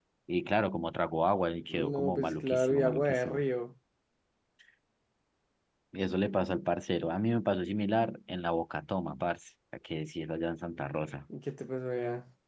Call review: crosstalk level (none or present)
present